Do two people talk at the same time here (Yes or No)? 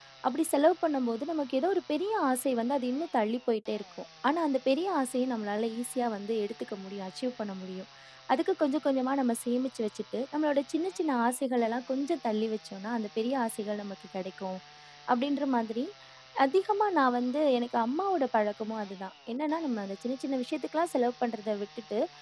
No